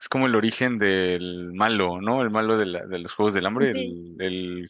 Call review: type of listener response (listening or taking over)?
listening